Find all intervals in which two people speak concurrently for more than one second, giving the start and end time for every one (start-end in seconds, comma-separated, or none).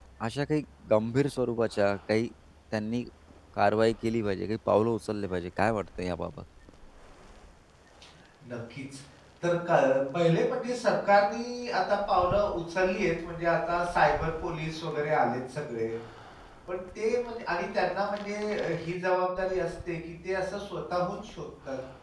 none